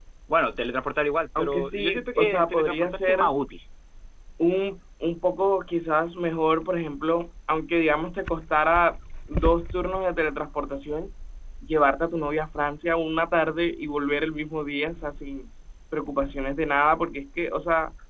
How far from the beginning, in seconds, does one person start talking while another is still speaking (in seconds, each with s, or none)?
1.4 s